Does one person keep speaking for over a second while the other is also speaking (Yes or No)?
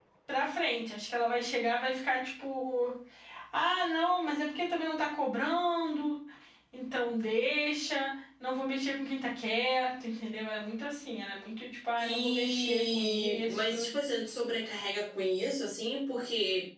Yes